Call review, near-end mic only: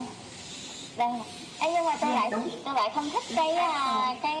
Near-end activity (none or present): present